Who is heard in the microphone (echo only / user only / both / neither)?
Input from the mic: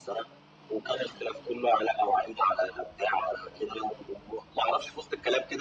echo only